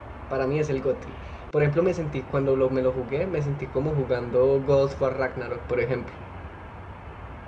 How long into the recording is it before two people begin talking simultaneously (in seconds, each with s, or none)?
none